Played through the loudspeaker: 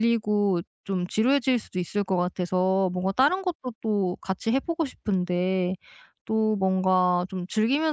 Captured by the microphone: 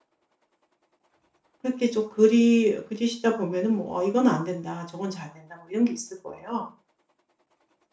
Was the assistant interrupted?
Yes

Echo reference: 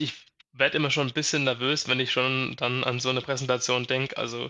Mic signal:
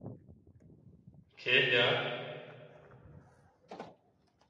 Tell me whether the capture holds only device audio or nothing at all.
No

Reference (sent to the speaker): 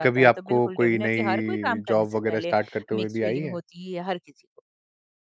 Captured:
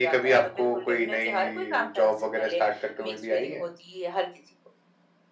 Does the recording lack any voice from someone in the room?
Yes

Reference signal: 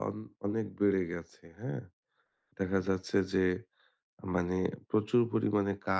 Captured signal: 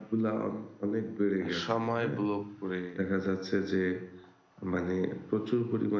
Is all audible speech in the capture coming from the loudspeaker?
No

